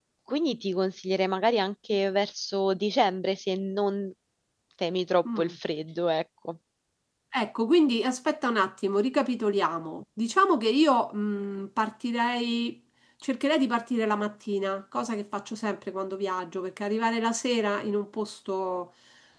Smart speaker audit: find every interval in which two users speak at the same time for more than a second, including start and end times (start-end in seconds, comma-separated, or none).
none